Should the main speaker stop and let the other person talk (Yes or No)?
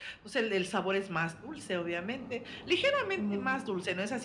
No